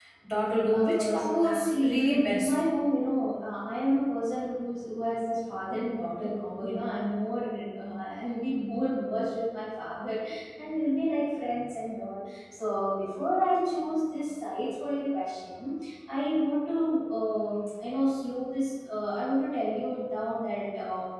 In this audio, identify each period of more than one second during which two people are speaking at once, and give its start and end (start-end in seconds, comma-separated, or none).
0.7-2.5